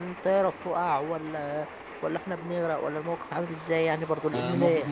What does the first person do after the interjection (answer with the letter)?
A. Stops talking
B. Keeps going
A